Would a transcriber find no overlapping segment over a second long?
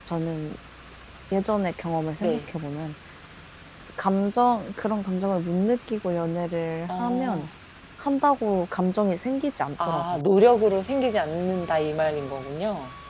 Yes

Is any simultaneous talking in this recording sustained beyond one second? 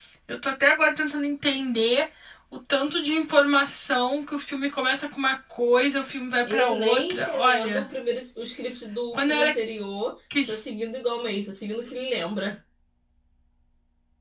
Yes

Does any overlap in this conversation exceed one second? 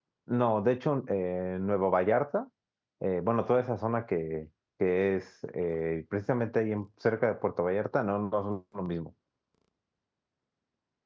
No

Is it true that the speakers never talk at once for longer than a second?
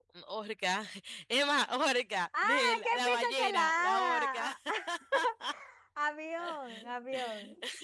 No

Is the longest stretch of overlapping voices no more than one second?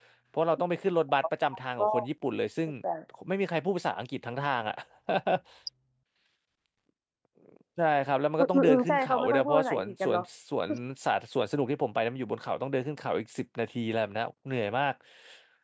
No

